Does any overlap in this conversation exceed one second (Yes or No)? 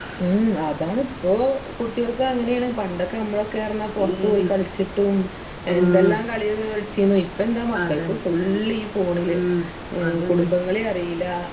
No